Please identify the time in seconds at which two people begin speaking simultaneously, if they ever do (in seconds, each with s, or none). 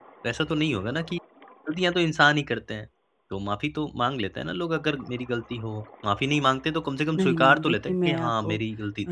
7.1 s